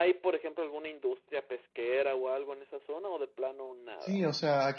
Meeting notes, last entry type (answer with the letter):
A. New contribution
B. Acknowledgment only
A